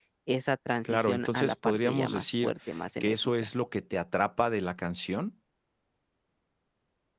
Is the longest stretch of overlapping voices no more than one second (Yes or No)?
No